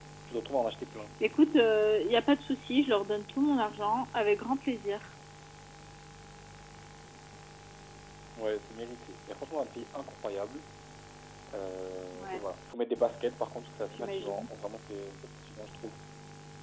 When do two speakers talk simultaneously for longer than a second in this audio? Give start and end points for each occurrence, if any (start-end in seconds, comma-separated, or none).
none